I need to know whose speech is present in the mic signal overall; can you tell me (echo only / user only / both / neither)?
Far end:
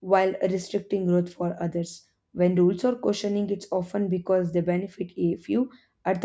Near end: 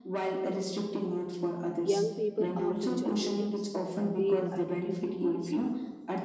both